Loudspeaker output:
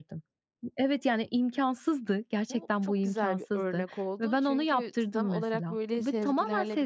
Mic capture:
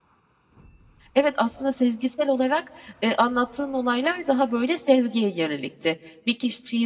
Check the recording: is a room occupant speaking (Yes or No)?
Yes